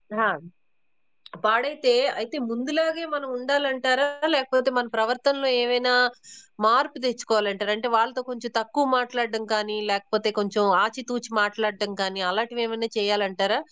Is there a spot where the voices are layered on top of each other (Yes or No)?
No